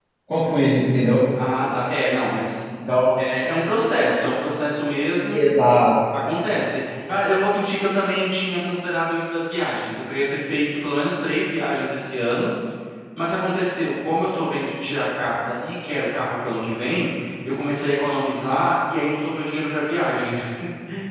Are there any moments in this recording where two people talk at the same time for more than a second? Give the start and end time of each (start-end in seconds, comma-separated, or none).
none